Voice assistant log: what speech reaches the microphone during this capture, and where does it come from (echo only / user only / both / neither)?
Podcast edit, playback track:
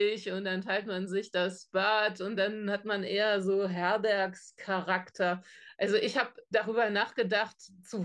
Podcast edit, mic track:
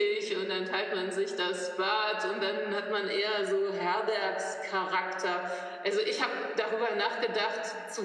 echo only